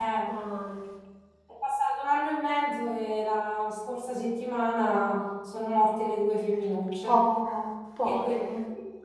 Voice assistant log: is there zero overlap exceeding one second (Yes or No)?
Yes